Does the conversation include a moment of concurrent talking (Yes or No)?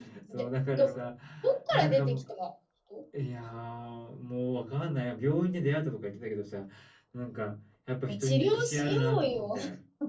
Yes